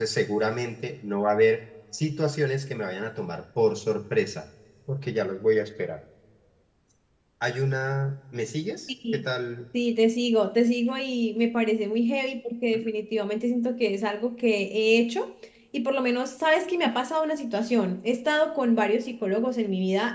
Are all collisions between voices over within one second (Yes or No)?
Yes